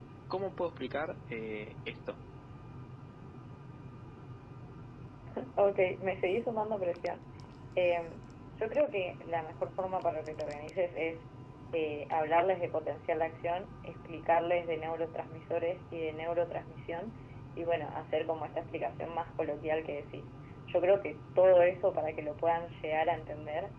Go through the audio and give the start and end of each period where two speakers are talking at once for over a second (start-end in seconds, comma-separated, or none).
none